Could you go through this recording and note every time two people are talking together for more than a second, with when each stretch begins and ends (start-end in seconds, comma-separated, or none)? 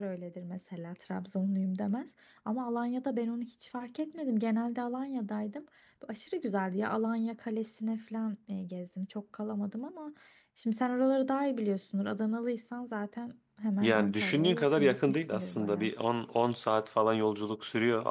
13.8-15.9